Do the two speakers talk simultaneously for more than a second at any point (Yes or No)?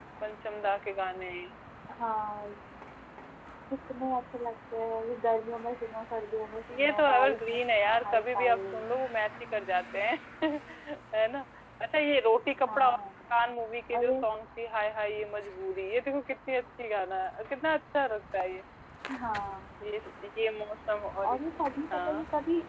Yes